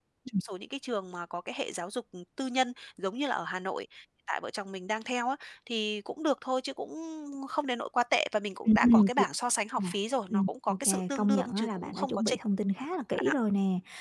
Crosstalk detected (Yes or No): Yes